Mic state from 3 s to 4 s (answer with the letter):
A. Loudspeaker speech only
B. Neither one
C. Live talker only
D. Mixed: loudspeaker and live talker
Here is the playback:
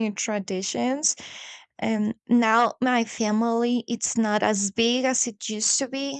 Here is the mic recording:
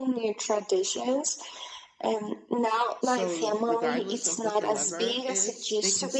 D